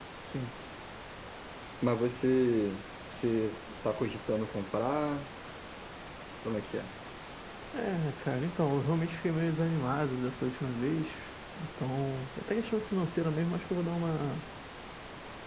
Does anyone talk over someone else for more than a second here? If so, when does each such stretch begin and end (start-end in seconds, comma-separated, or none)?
none